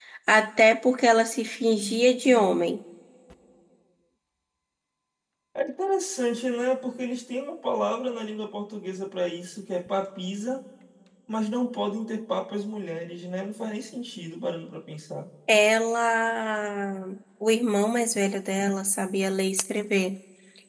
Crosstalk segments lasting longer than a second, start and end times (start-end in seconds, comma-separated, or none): none